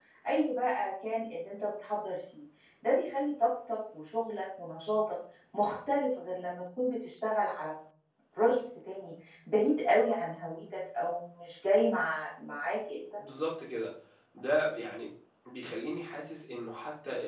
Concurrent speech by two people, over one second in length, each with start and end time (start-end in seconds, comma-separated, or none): none